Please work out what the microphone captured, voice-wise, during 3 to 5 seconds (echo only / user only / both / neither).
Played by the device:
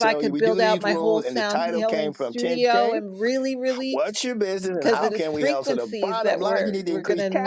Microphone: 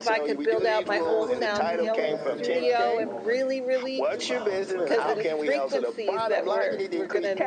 both